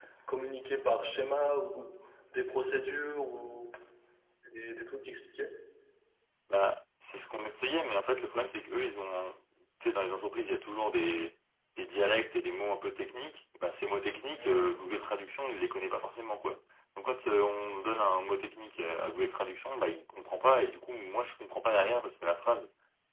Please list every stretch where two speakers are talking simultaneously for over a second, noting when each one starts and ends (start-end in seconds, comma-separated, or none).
none